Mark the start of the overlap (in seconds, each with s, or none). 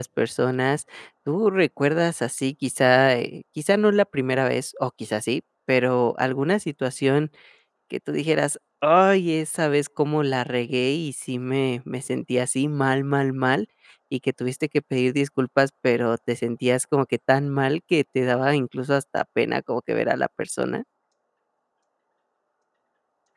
none